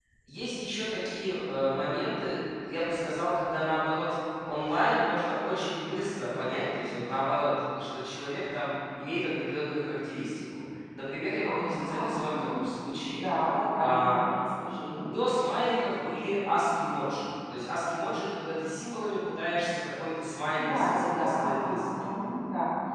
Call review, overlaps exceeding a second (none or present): present